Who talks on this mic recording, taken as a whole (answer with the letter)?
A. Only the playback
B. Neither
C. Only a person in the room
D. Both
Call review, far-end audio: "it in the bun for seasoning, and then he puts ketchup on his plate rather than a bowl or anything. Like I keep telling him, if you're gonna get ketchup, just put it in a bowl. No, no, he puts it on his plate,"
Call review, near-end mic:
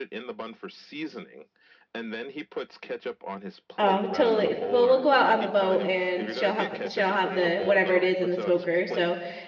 D